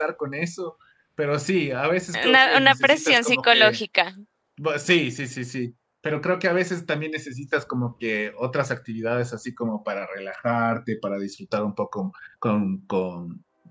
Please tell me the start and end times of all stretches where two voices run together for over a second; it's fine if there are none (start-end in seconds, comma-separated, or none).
2.1-3.8